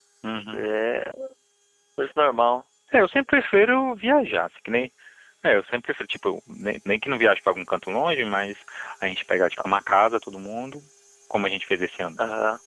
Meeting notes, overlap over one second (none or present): none